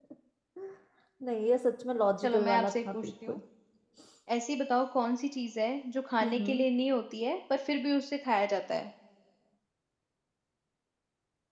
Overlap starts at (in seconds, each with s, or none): 2.2 s